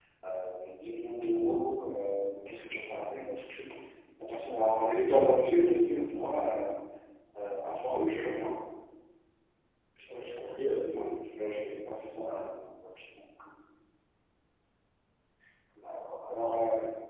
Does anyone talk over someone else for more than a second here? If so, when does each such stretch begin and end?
none

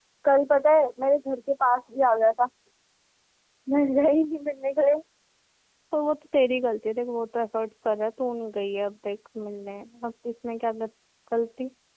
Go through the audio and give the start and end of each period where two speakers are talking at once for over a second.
none

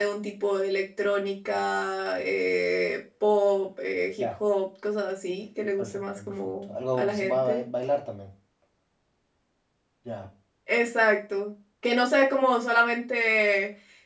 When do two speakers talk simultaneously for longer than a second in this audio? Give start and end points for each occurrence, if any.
5.8-7.6

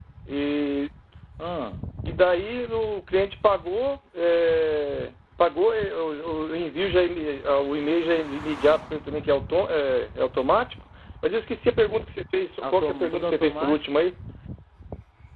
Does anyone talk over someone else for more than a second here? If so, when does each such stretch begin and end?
12.6-13.8

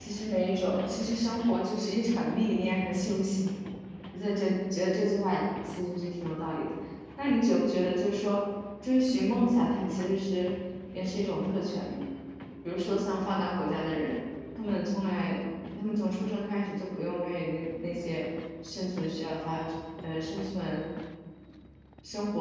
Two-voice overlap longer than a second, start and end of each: none

